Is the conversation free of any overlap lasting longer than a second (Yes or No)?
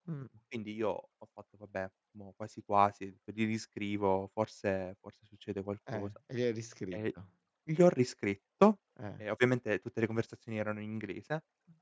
Yes